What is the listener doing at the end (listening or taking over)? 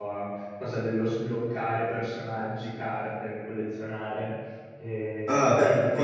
taking over